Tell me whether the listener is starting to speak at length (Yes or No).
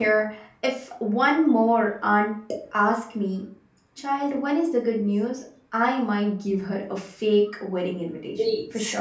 Yes